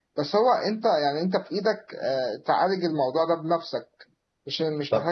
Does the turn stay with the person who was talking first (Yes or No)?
No